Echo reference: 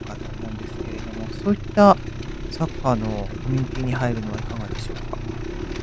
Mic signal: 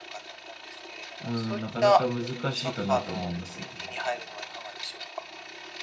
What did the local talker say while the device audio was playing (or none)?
うん、なかなか難しいかなと思いますね。